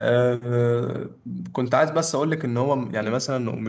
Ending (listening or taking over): listening